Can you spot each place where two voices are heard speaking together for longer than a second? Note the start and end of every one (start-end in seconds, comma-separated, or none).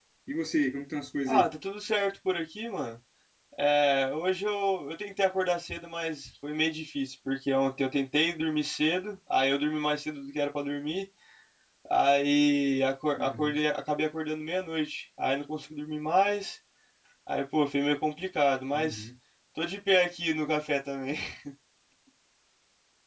none